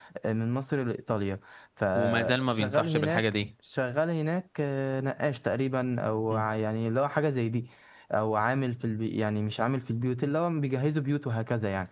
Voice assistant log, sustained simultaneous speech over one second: present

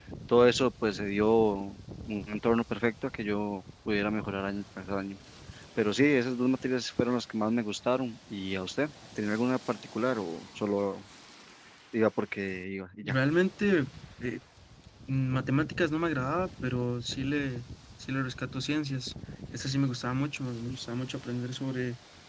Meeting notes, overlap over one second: none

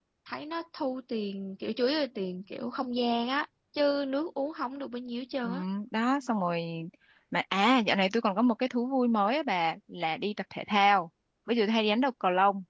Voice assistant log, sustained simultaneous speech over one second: none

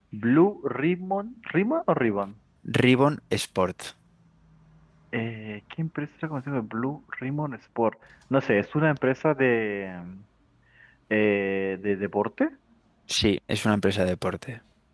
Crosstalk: none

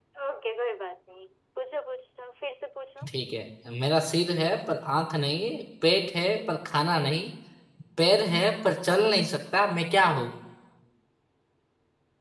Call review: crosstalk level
none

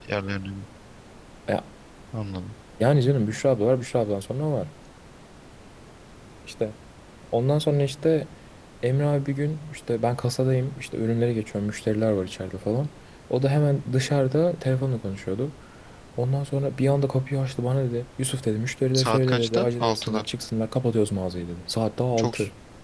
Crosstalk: present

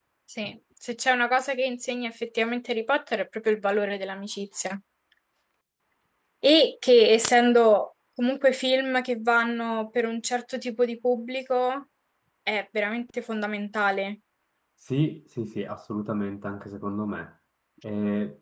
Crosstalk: none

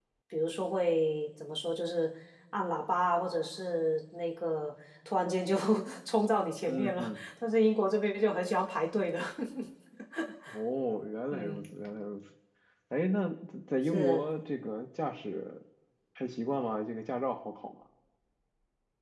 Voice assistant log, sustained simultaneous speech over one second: none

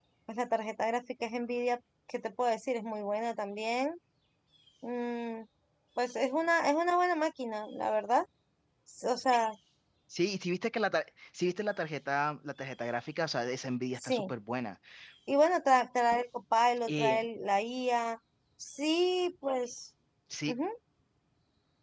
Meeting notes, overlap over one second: none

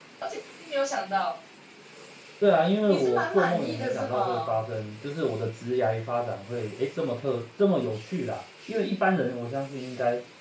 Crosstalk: present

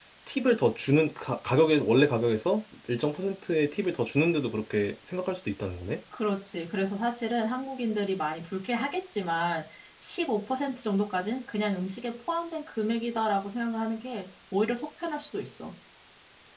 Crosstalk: none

